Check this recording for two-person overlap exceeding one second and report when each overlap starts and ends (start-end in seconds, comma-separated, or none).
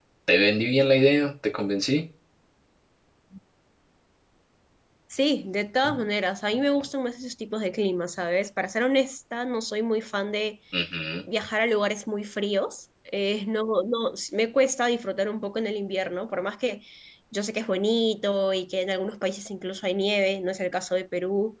none